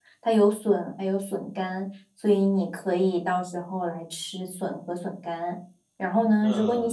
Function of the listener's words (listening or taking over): listening